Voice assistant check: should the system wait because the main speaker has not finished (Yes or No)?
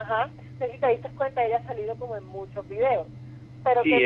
Yes